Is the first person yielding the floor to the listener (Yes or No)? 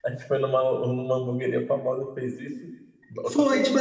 Yes